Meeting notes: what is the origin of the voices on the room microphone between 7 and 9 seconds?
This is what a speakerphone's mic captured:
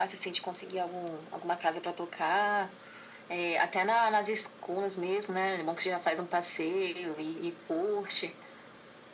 echo only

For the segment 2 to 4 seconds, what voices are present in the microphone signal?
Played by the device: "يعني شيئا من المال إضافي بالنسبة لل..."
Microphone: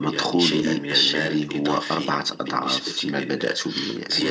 both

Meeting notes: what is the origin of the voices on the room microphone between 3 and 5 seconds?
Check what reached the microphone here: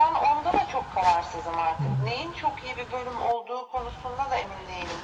echo only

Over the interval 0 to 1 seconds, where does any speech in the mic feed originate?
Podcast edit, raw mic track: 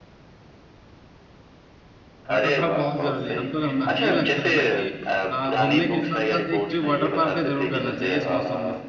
neither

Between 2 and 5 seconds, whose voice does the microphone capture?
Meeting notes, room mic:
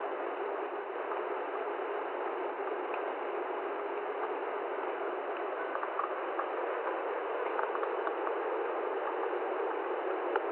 neither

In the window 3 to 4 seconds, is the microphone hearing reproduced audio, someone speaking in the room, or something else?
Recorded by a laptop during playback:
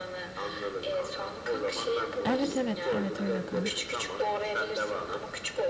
both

